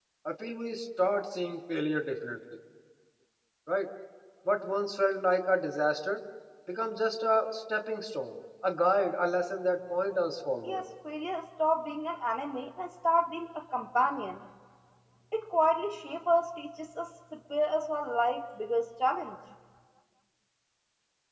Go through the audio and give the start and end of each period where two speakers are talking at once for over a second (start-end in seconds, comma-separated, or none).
none